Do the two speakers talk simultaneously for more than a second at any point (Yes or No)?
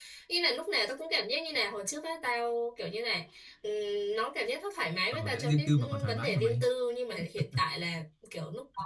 Yes